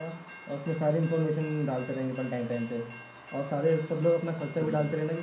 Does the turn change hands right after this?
No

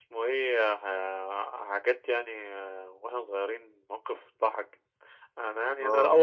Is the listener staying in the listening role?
Yes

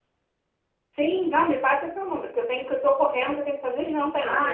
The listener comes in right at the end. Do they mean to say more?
Yes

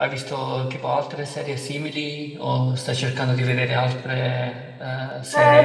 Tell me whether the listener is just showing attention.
No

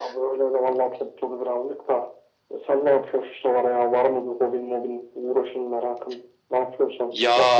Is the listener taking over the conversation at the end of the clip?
Yes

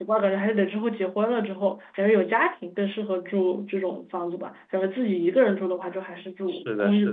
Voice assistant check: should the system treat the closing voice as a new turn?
Yes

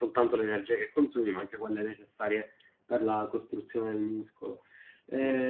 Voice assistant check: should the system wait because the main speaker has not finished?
Yes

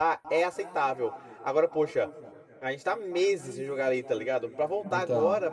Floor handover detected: No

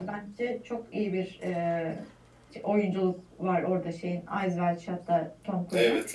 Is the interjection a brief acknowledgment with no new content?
Yes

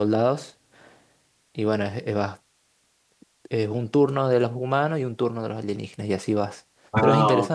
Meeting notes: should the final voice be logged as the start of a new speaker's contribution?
Yes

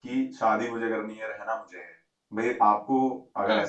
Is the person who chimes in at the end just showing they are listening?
Yes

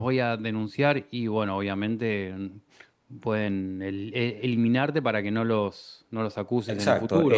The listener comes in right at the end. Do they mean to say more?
Yes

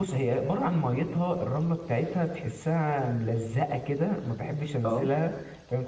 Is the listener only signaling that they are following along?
Yes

